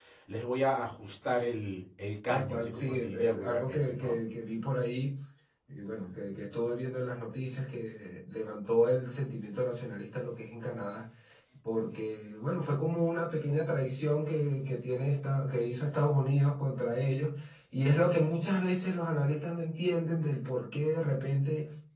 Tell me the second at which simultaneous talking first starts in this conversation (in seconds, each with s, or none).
2.3 s